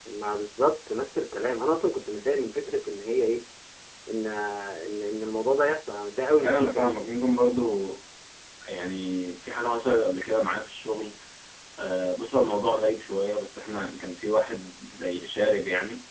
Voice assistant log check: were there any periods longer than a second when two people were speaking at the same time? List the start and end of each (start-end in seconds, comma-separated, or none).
none